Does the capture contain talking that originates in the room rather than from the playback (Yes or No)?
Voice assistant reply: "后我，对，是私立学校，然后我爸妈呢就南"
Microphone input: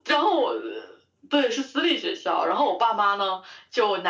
No